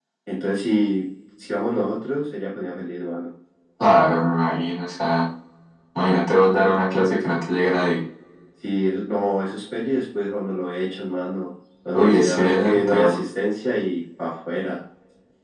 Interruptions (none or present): present